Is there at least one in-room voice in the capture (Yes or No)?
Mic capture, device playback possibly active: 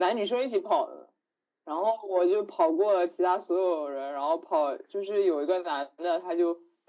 No